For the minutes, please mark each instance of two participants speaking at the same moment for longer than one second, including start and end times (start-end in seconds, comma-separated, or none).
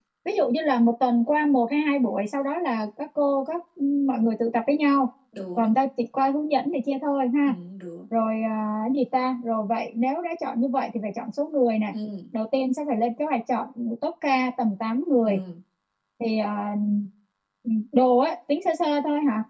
none